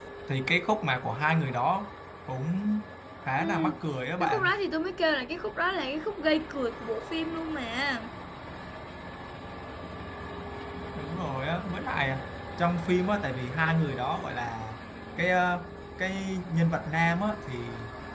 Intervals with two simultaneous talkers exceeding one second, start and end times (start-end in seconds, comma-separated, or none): none